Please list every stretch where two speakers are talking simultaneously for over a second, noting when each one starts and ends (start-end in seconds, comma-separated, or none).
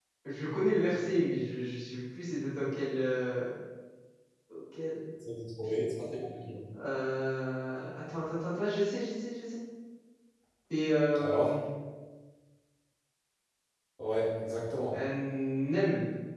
none